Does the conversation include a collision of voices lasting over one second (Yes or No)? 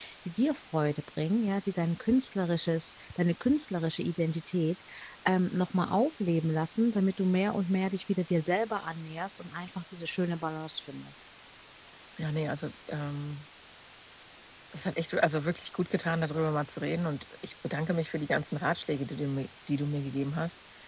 No